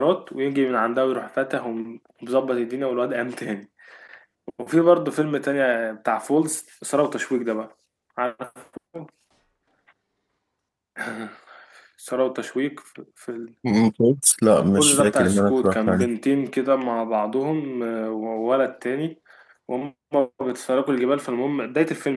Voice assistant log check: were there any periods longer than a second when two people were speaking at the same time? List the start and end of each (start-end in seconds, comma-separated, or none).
14.8-16.1